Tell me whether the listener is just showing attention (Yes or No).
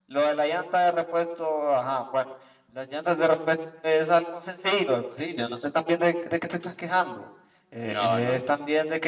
Yes